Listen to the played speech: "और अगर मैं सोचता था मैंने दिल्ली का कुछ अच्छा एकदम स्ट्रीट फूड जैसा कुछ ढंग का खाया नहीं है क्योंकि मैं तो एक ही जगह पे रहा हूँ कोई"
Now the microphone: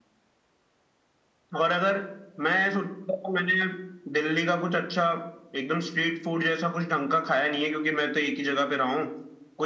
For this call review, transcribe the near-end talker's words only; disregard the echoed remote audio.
none

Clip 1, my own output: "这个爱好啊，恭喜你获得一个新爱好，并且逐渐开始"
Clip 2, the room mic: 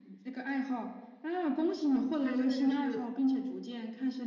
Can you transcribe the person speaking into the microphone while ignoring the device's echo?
它真的就是

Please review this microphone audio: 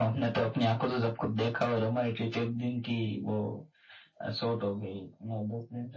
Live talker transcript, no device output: none

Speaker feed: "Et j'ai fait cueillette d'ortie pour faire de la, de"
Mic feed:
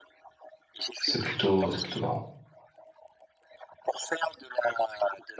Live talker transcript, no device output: c'est plutôt, c'est plutôt marrant.

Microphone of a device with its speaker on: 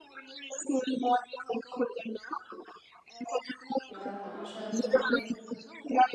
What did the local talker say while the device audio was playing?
यार हाँ शर्म तो

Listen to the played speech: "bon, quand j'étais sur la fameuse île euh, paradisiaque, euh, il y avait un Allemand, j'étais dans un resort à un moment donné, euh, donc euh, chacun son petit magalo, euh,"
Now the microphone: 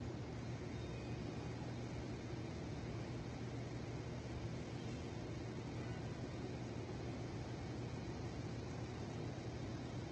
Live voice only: none

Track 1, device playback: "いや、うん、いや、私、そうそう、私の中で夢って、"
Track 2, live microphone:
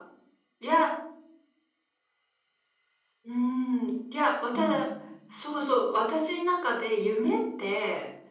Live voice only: うん。

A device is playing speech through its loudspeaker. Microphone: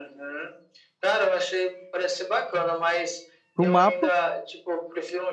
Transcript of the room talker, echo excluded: pro mapa

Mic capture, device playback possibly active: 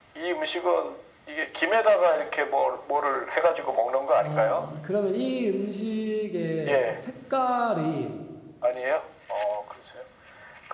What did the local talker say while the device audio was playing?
아, 그러면 이 음식의 색깔이

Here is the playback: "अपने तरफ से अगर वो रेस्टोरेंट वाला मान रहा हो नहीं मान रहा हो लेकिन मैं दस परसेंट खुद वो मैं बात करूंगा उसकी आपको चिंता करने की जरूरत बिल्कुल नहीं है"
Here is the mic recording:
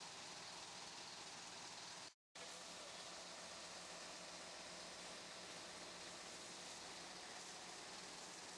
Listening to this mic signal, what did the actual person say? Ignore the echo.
none

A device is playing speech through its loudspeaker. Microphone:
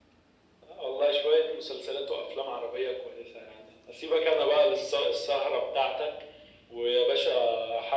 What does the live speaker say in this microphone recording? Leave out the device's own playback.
none

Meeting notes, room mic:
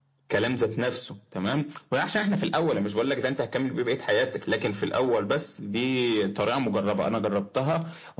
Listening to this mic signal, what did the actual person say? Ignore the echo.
none

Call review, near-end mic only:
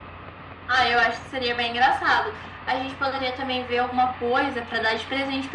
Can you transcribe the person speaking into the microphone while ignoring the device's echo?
none

